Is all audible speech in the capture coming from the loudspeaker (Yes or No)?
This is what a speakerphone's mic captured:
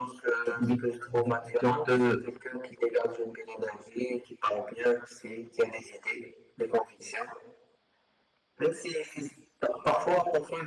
No